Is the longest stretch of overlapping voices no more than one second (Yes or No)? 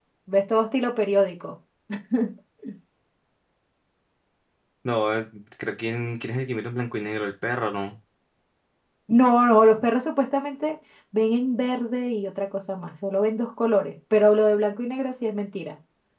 Yes